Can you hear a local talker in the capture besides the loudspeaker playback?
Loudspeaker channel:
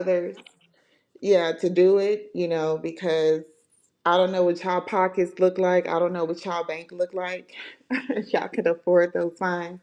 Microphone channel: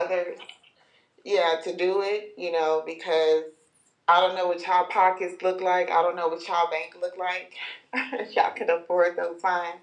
No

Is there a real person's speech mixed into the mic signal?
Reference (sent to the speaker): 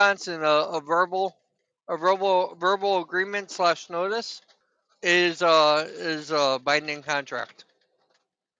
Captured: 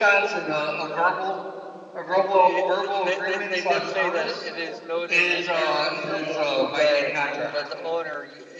Yes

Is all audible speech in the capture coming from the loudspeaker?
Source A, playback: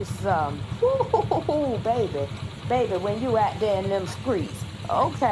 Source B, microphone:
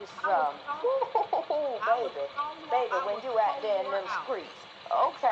No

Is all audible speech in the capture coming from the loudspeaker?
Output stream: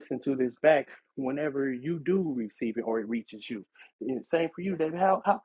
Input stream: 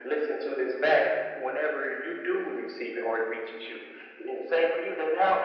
Yes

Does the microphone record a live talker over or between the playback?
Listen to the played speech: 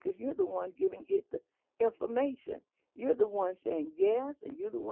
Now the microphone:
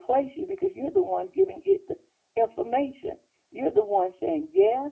No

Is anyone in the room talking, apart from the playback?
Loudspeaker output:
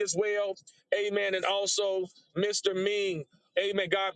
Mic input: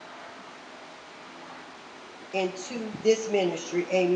Yes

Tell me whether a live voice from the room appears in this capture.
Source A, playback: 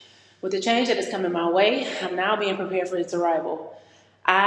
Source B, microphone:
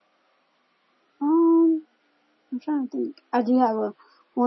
Yes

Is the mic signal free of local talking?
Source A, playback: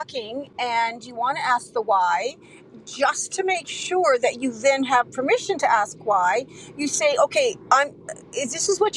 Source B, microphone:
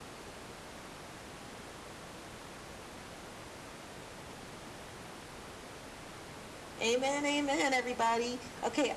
No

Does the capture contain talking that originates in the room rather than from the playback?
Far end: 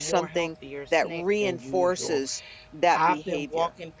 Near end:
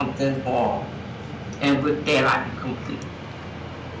Yes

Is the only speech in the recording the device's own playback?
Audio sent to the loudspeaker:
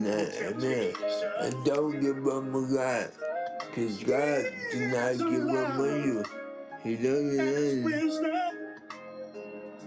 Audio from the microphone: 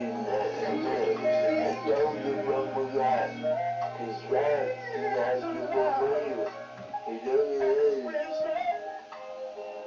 No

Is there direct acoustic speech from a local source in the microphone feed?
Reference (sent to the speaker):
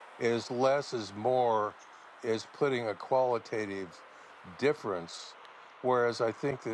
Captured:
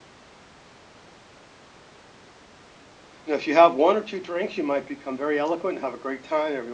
Yes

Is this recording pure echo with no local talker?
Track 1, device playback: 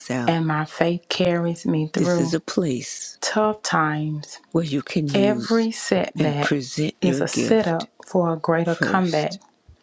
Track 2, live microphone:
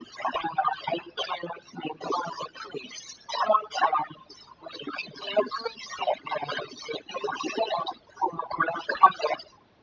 Yes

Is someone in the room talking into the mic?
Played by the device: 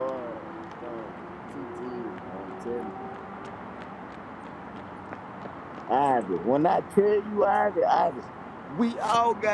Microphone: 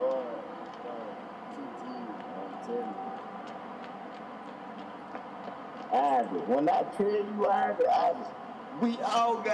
No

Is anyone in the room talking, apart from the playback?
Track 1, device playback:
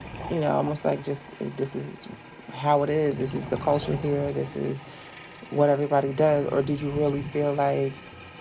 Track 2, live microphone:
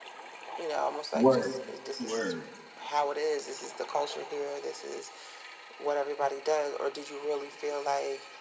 Yes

